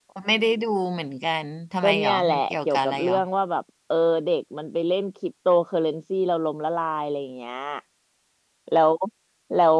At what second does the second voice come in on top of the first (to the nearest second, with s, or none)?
2 s